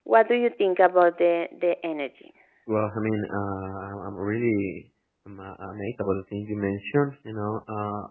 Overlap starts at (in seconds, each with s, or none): none